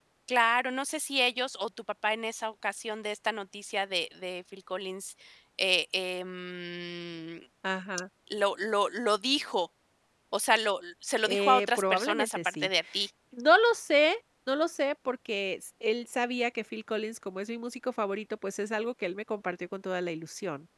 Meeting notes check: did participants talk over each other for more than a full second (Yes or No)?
Yes